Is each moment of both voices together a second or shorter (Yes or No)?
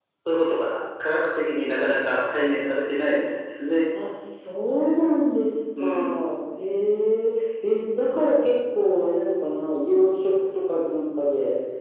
Yes